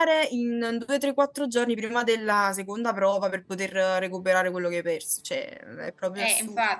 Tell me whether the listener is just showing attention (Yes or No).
No